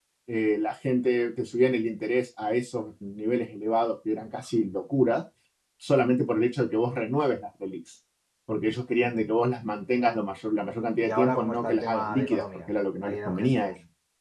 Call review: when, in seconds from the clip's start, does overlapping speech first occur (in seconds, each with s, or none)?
11.0 s